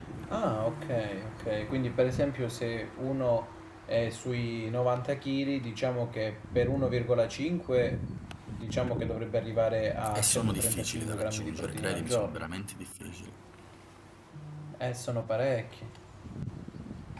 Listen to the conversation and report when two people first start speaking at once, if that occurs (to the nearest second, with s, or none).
10 s